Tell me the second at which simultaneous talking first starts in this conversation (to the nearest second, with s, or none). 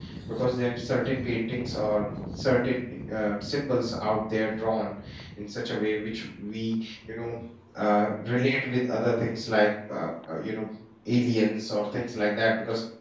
none